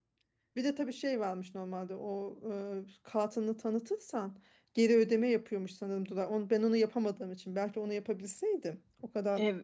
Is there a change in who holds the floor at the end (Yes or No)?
No